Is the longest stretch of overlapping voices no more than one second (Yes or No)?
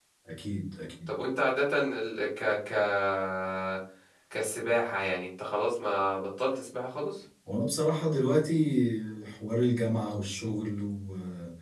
Yes